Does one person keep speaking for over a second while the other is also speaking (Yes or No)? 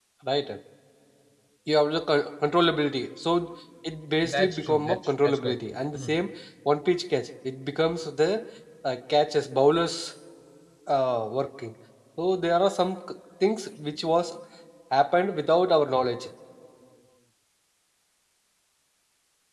Yes